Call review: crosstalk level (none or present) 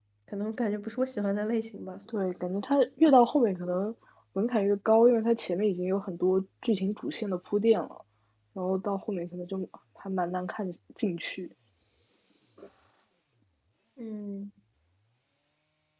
none